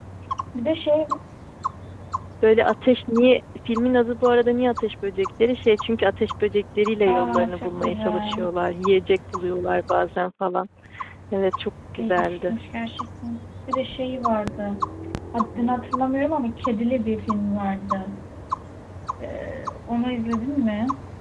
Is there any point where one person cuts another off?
Yes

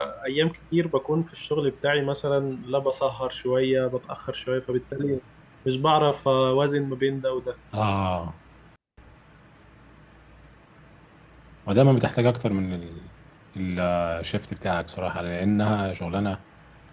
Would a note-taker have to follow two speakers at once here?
No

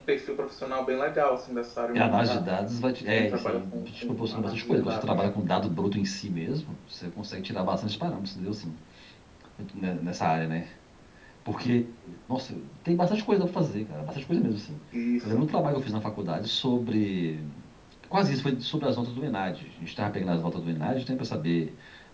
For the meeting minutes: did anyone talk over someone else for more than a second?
Yes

